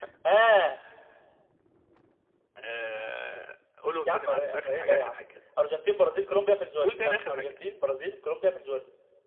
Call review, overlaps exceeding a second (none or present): present